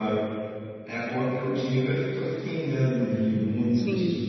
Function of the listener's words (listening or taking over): listening